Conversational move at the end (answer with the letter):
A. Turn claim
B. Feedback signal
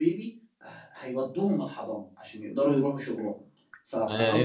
A